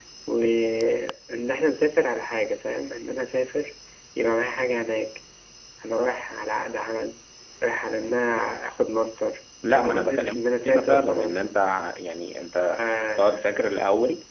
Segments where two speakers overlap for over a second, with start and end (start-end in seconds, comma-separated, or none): 9.7-11.4